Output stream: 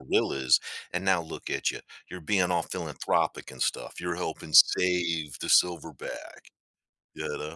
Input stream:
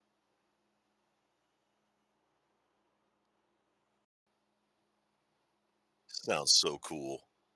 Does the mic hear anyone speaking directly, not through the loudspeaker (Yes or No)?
Yes